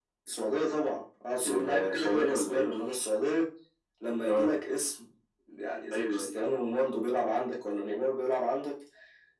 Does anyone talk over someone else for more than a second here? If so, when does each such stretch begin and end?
1.4-2.8

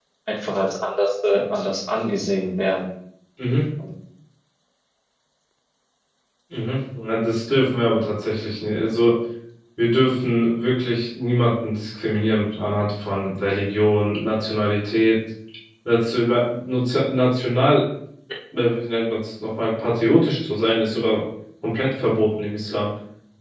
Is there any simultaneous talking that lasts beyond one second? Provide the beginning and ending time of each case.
none

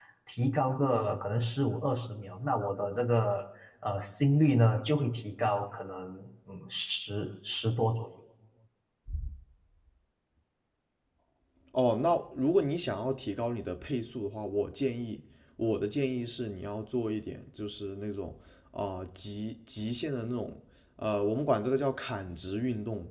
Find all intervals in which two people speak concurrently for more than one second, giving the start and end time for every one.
none

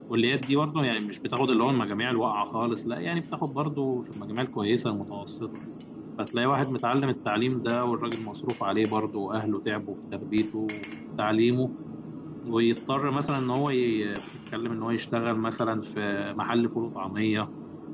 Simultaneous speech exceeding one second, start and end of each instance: none

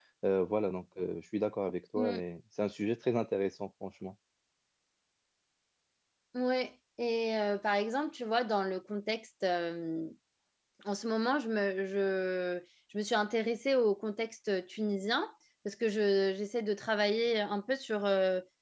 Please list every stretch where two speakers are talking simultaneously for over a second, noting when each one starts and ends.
none

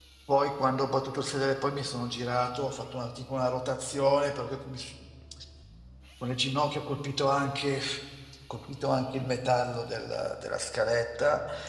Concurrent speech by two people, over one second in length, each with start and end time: none

